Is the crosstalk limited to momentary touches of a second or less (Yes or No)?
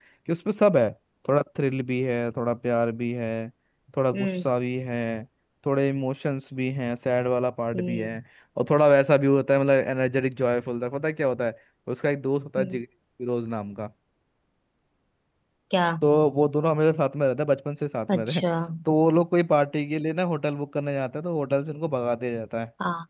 Yes